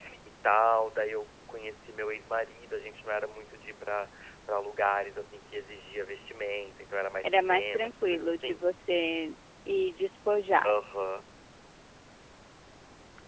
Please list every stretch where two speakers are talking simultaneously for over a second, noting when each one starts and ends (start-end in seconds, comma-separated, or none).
7.2-8.6